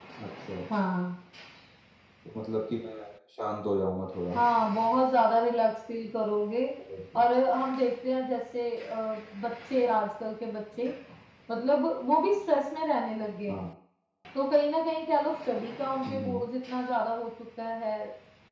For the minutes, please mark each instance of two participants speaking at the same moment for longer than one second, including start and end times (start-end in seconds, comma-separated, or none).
none